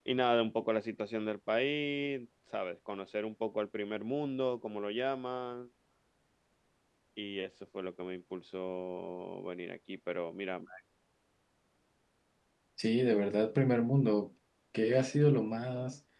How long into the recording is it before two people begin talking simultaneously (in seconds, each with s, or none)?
none